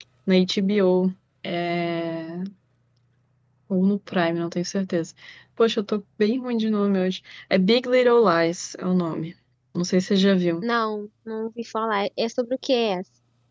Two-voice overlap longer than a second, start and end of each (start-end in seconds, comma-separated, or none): none